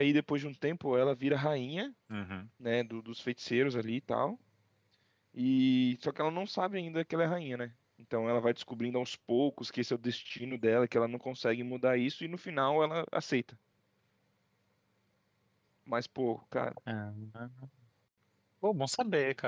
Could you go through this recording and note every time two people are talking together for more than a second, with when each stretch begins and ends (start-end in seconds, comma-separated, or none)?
none